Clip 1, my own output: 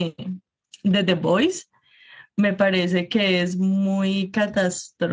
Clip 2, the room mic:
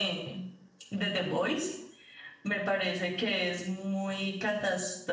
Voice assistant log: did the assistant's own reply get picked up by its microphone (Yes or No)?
Yes